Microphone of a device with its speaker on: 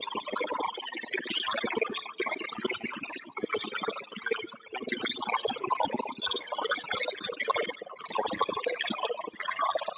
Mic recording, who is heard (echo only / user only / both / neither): echo only